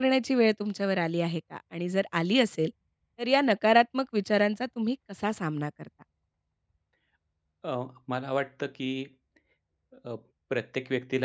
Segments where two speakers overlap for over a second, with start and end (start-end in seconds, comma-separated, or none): none